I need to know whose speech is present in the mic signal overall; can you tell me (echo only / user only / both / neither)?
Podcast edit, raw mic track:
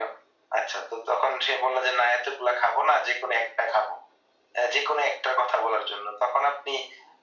echo only